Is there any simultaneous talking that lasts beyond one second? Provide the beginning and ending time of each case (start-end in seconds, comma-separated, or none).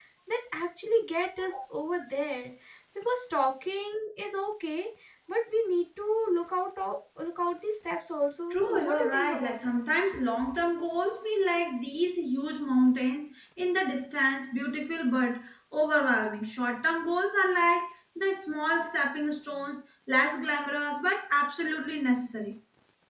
8.5-9.8